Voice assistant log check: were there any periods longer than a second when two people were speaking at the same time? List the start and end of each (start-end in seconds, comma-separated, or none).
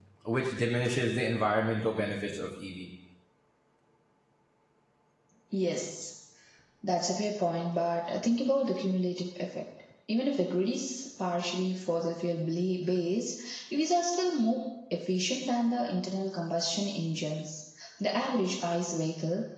none